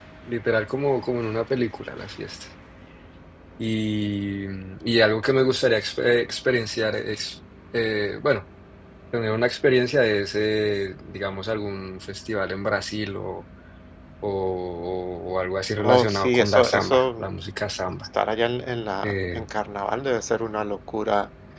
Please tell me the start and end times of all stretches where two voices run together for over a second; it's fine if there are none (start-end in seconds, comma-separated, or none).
15.8-17.2